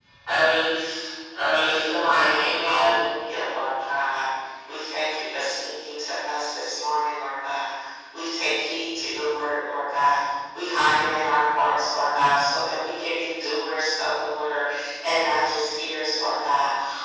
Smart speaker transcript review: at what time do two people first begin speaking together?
1.6 s

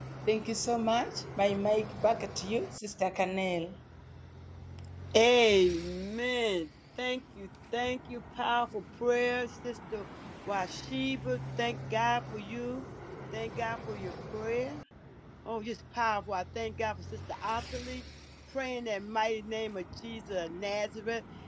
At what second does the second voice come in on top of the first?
none

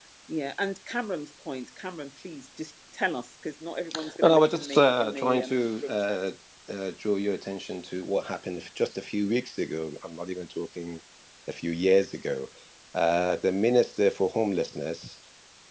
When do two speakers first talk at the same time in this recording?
4.2 s

